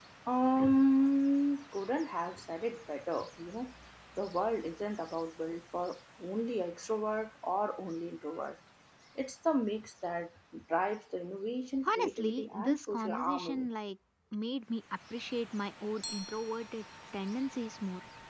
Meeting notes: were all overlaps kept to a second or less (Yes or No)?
No